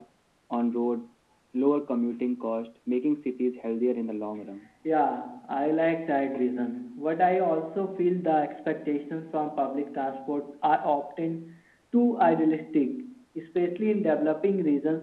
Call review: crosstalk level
none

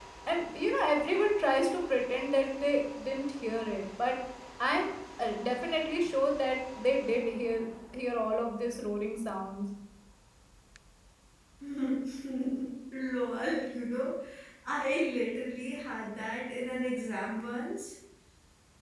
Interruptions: none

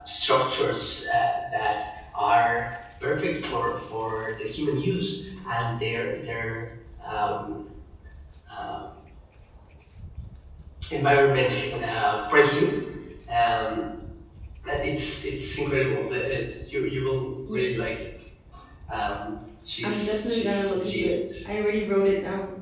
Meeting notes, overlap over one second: present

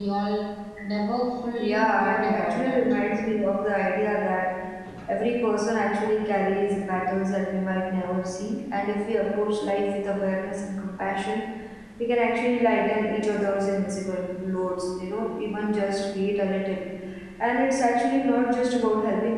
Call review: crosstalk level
present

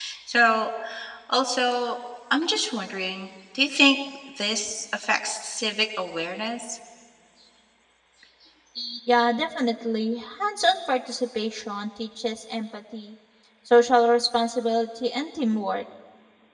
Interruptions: none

